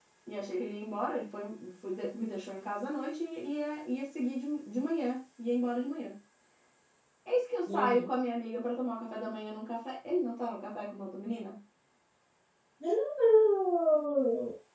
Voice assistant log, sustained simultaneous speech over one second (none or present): none